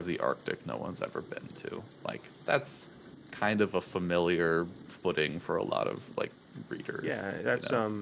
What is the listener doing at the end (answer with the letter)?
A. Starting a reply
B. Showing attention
A